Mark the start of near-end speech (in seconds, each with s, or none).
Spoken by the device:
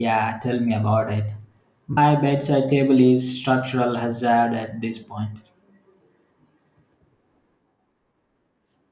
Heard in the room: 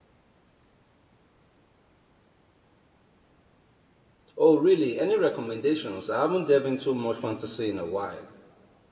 4.3 s